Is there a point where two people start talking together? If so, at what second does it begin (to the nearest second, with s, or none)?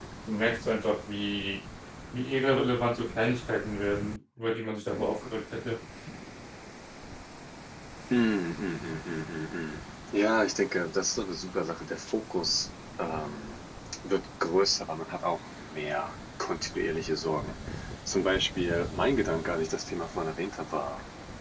none